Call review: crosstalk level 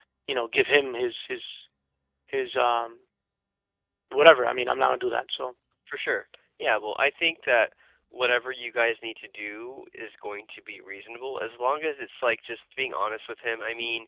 none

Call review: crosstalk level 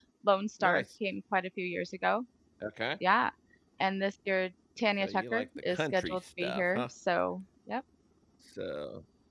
present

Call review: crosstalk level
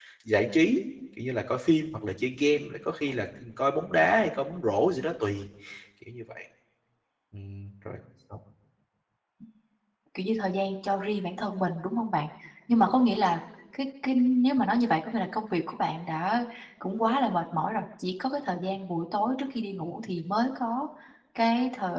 none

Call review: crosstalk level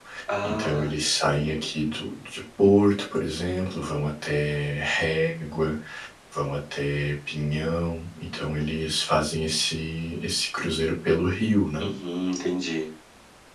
present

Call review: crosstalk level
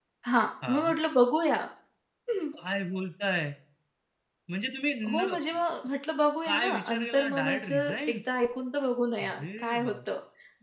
present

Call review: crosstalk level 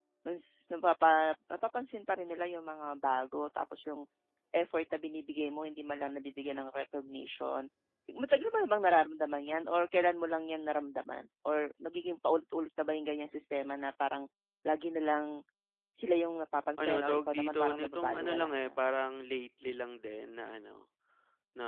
present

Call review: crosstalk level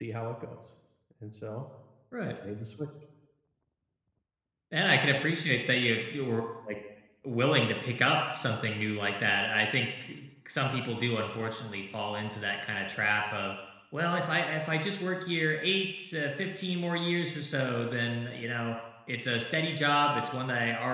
none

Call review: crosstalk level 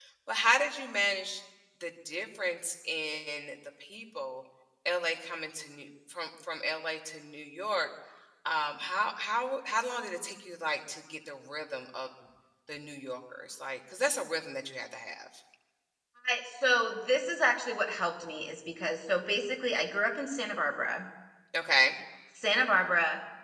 none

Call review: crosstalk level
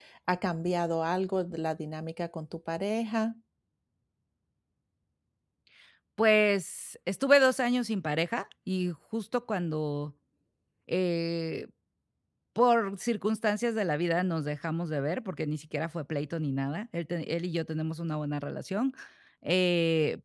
none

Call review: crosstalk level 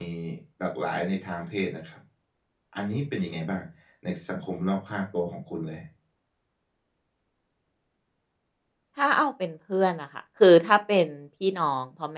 none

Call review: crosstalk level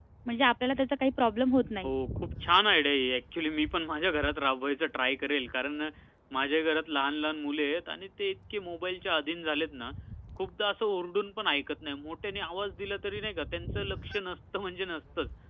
none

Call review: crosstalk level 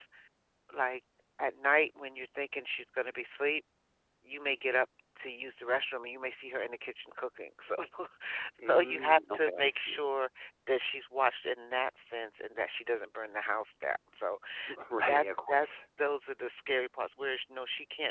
present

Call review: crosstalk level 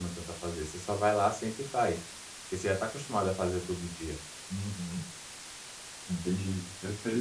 none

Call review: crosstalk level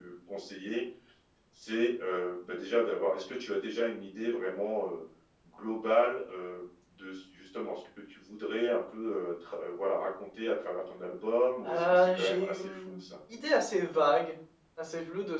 present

